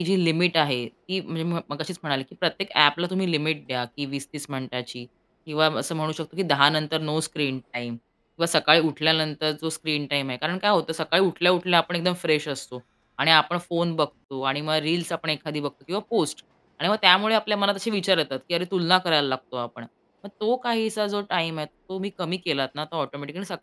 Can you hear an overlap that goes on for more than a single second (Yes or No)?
No